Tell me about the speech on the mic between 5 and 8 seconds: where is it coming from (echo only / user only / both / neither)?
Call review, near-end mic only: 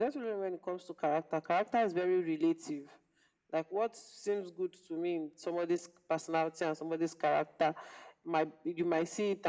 echo only